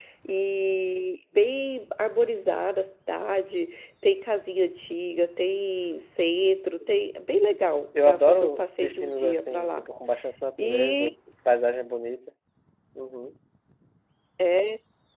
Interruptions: present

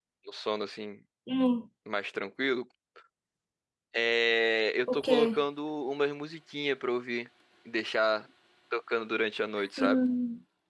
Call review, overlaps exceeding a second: none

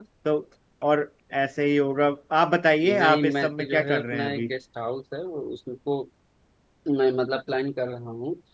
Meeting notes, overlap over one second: present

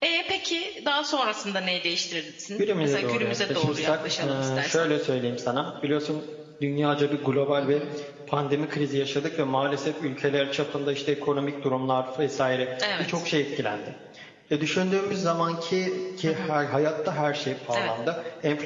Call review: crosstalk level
present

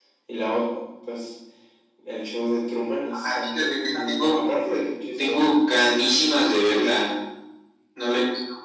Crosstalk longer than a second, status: present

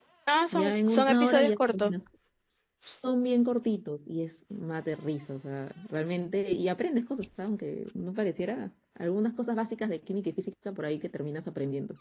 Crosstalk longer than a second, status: present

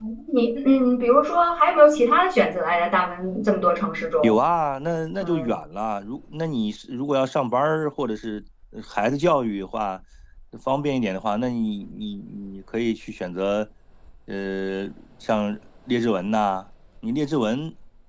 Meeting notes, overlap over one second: none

